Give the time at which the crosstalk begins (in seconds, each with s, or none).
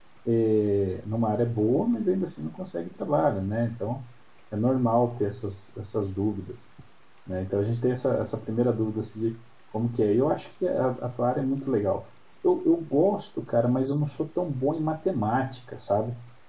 none